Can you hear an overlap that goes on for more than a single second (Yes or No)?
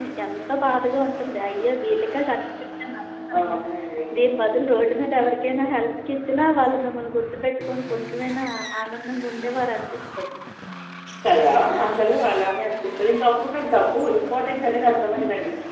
No